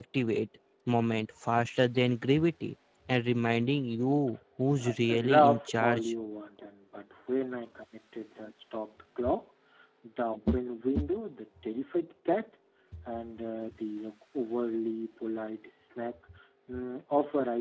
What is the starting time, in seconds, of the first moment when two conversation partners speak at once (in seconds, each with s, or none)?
4.8 s